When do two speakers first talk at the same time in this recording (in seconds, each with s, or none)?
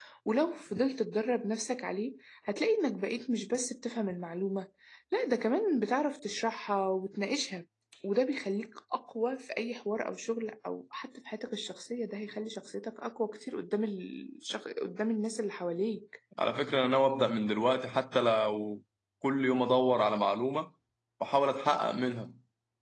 none